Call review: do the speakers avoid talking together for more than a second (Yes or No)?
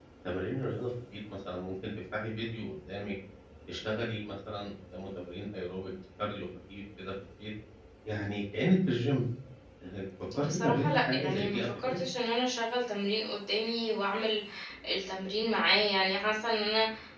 No